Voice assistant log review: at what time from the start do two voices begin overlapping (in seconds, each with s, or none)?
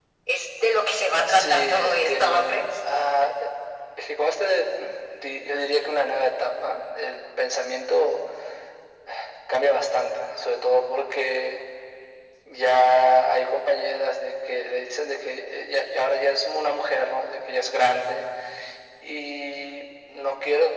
1.3 s